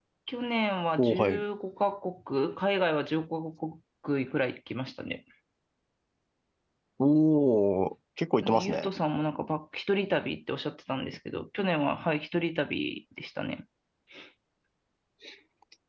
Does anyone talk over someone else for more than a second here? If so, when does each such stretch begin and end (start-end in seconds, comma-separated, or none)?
none